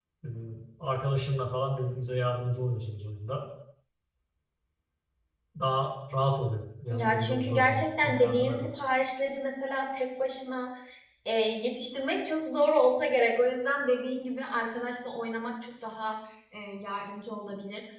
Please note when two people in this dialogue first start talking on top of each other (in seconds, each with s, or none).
6.9 s